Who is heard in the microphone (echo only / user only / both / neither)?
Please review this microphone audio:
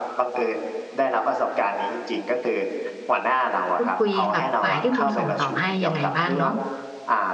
both